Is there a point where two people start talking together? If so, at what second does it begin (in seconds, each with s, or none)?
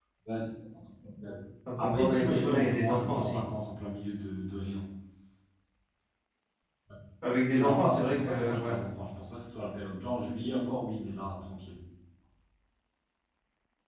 1.8 s